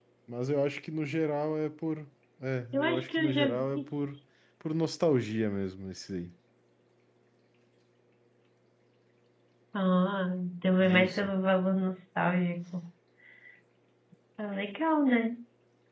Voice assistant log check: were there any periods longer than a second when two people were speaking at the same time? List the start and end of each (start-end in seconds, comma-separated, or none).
2.7-4.2